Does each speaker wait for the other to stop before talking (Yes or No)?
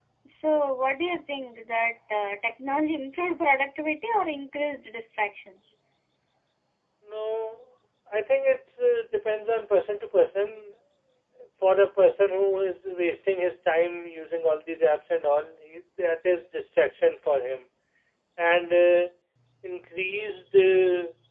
Yes